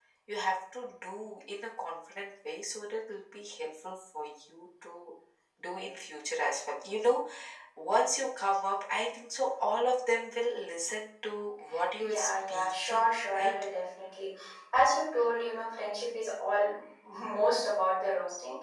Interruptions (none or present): present